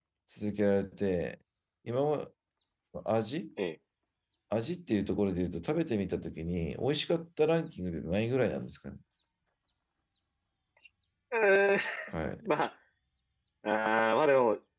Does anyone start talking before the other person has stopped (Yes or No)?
No